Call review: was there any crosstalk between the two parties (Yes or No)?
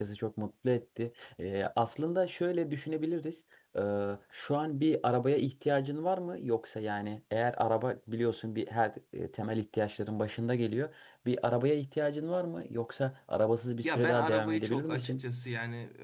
Yes